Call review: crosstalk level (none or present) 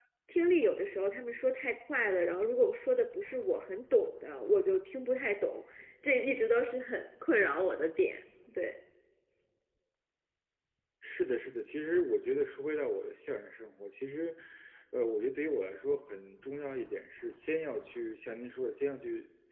none